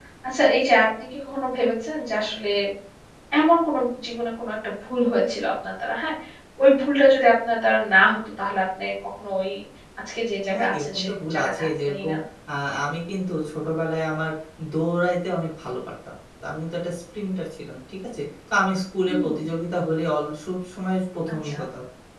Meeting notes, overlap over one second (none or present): present